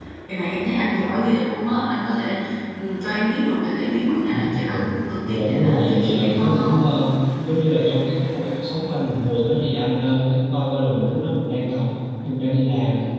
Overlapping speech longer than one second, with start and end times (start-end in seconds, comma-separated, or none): 5.3-6.7